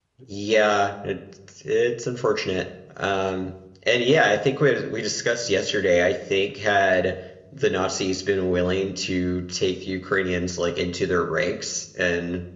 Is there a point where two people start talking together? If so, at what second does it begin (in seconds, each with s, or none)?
none